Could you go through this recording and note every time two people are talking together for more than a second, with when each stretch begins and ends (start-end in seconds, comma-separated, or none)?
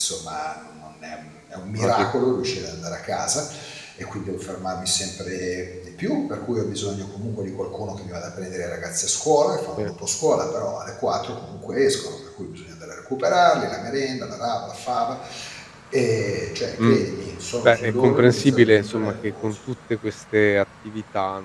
17.6-19.6